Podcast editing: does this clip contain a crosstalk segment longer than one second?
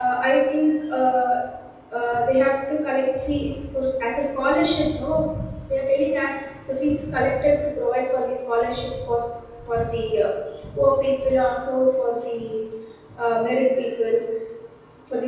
No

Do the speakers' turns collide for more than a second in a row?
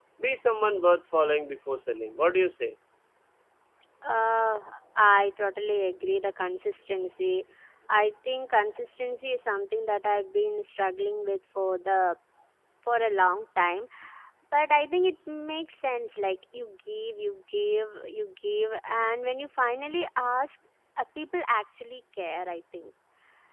No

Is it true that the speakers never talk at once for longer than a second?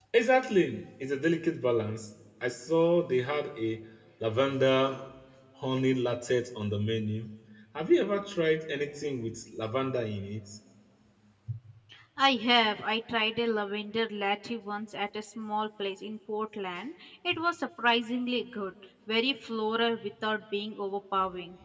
Yes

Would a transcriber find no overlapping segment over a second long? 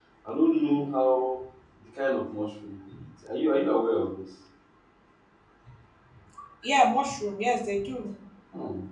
Yes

